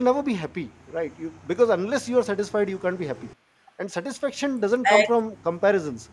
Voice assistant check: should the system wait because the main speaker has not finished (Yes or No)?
Yes